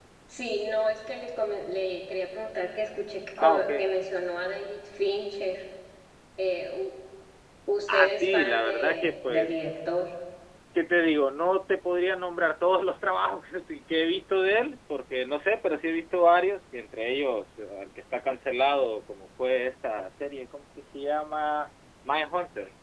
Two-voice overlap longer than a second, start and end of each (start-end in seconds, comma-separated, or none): 7.9-9.5